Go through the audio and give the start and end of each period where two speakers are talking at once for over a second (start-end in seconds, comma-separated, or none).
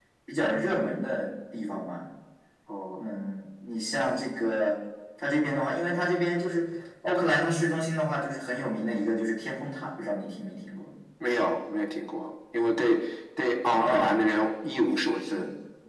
none